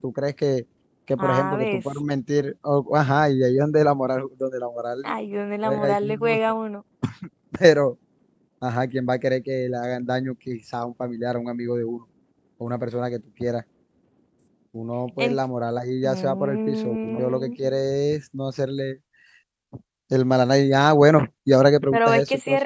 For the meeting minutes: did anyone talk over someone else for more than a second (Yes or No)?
Yes